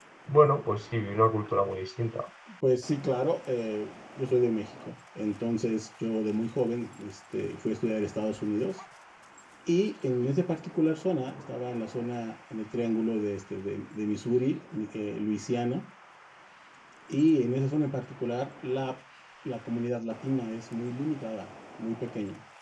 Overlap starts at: none

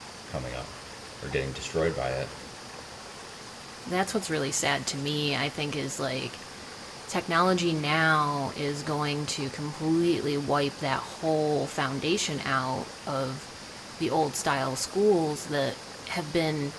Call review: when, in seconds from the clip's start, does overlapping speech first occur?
none

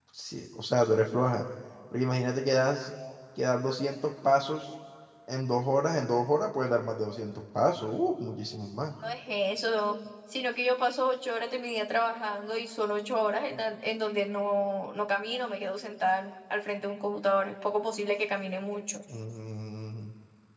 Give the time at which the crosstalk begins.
none

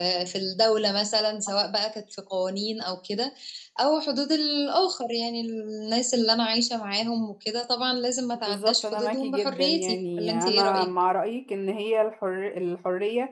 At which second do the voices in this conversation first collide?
8.4 s

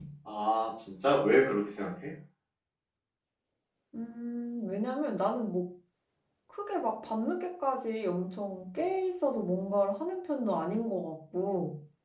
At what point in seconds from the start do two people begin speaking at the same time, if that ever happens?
none

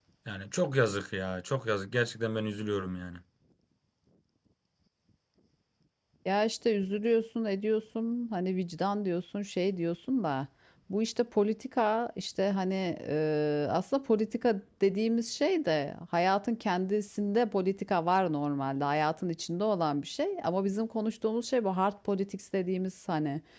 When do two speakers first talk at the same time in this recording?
none

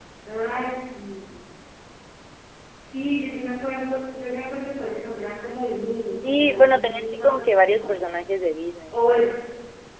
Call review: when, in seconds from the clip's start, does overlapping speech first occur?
6.2 s

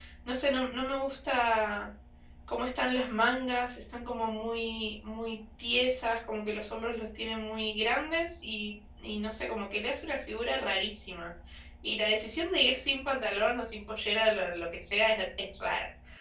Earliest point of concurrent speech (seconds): none

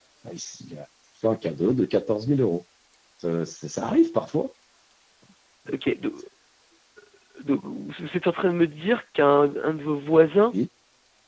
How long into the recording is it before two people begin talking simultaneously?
none

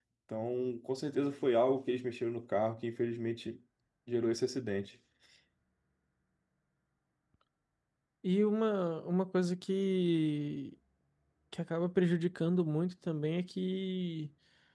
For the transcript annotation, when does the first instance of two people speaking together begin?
none

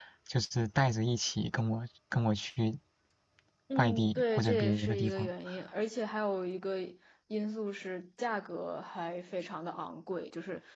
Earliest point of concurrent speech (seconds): 3.8 s

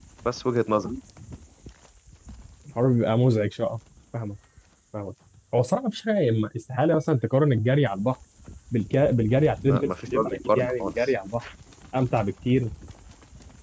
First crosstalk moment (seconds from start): 9.7 s

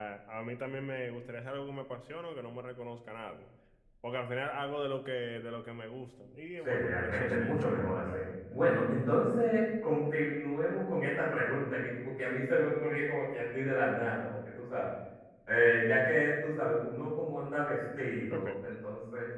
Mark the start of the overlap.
6.6 s

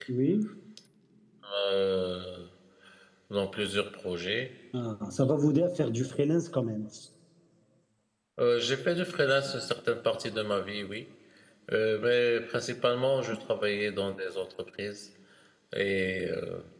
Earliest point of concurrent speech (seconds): none

